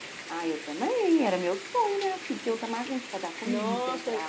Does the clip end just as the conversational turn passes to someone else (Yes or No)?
Yes